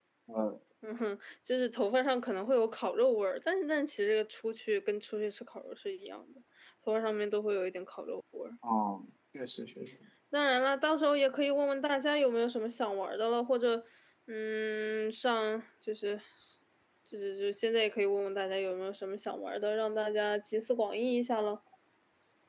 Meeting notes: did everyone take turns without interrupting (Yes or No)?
Yes